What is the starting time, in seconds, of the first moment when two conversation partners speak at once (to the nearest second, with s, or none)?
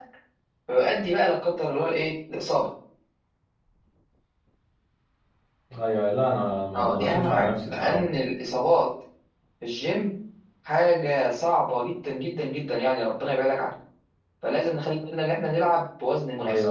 7 s